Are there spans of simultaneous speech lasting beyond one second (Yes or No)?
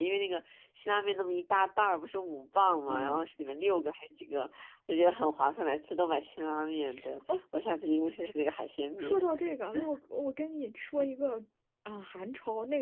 No